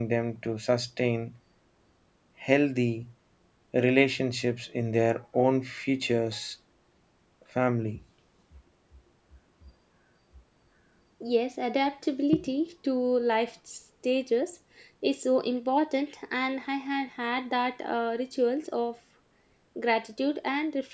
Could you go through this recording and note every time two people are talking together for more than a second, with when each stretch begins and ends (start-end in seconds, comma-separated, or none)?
none